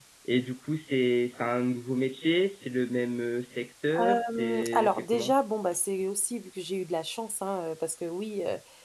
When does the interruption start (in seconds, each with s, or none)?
3.9 s